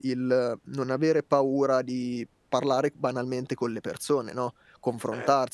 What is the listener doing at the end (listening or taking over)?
listening